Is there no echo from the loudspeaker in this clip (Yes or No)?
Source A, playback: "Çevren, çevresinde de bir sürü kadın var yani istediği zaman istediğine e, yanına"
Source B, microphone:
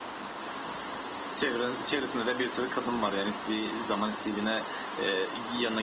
No